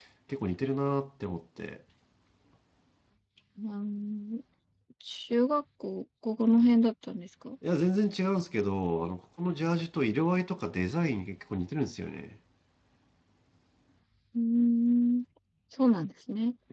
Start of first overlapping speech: none

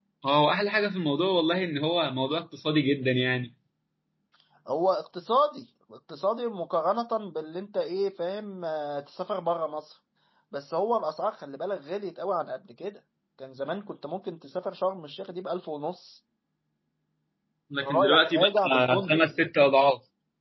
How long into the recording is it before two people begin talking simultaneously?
17.8 s

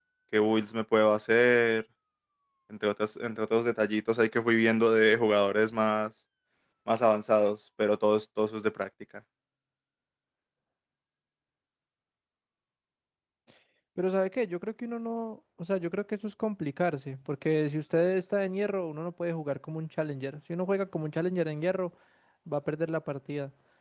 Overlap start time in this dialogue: none

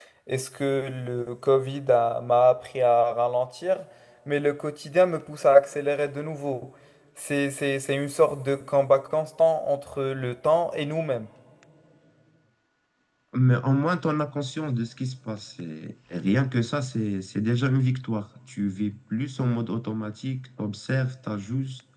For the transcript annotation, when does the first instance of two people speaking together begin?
none

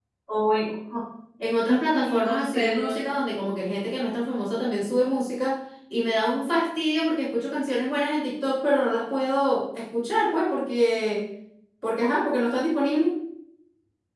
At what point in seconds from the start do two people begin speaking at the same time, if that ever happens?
1.6 s

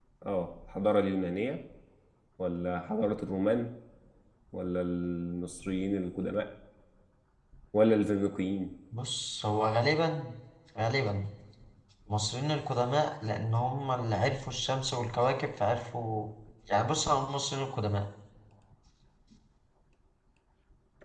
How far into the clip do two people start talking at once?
none

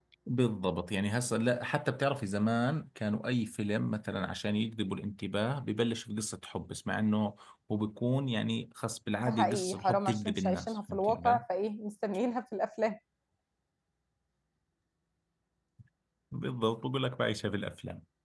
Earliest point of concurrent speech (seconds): 9.2 s

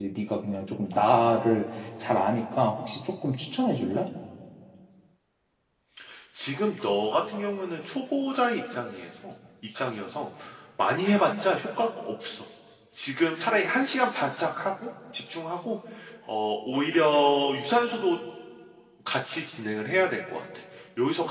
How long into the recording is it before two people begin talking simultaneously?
none

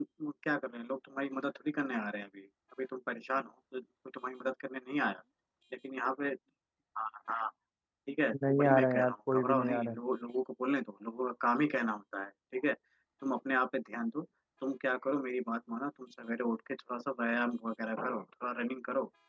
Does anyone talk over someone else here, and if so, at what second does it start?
8.5 s

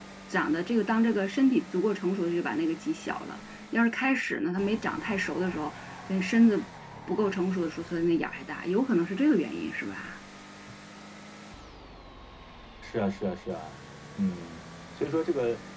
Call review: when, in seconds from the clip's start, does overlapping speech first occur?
none

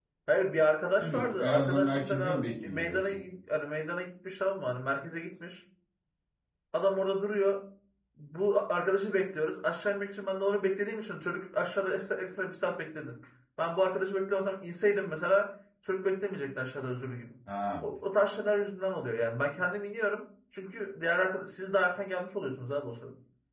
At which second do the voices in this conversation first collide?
1.0 s

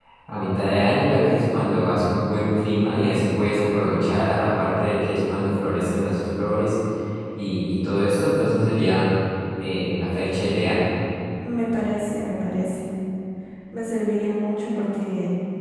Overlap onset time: none

